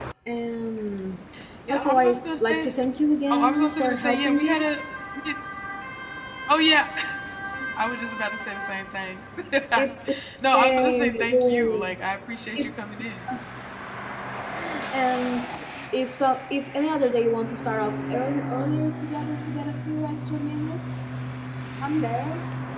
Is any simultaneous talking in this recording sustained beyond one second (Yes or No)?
Yes